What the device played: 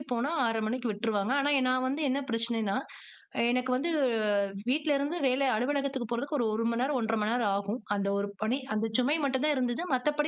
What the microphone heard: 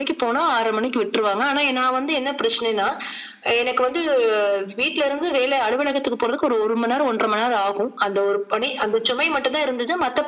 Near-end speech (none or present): none